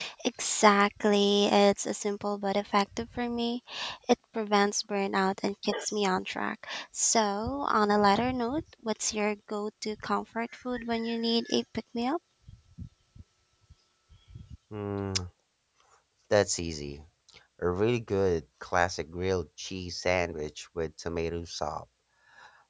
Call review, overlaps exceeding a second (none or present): none